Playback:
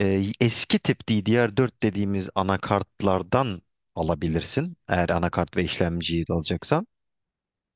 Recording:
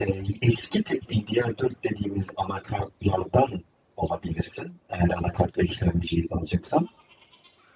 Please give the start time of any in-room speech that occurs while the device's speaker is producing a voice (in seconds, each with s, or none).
none